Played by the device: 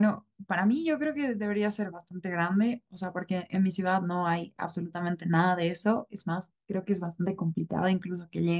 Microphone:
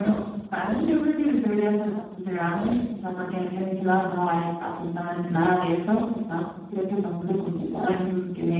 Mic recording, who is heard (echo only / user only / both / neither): echo only